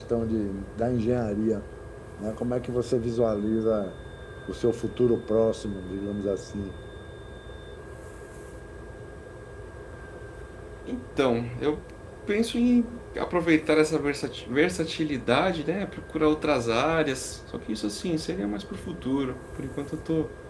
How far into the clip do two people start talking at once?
none

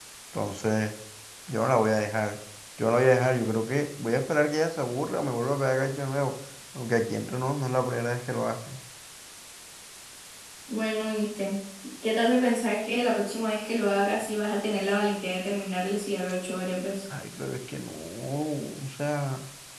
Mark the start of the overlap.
none

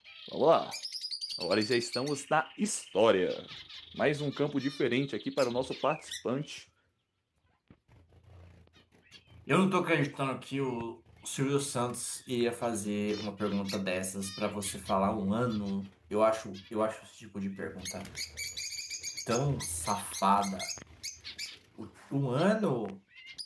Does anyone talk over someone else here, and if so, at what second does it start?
none

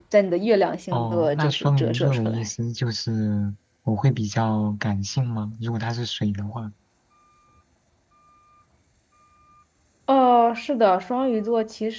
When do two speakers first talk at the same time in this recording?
0.9 s

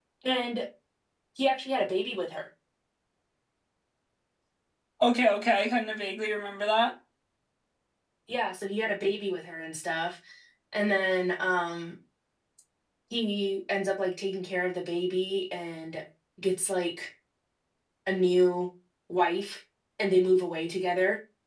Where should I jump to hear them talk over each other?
none

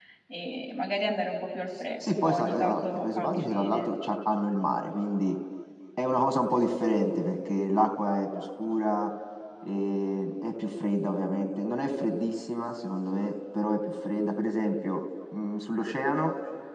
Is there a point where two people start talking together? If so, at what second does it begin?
2.0 s

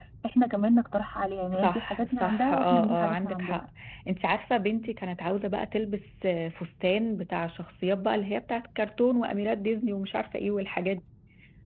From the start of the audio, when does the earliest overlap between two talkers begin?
1.5 s

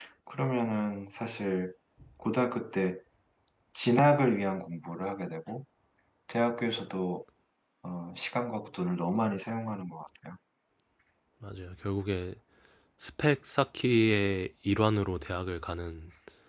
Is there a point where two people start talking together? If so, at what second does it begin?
none

